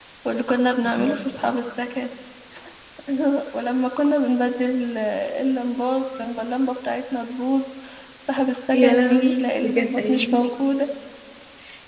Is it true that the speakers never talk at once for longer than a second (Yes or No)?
No